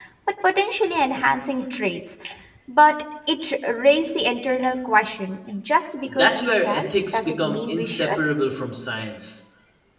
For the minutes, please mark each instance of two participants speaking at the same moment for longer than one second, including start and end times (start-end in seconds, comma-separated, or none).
6.0-8.1